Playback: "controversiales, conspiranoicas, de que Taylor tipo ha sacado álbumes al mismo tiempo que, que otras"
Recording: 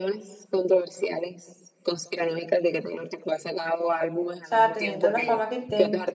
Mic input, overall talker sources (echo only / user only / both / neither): both